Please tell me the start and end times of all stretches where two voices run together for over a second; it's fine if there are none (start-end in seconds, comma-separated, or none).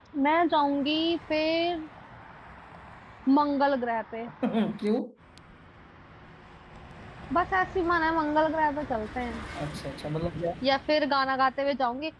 none